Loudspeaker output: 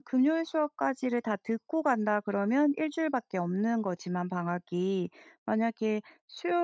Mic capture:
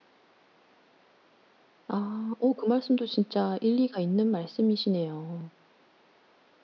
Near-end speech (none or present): present